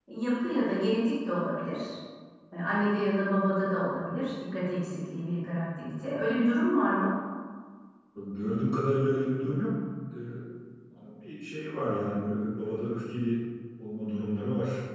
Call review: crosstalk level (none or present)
none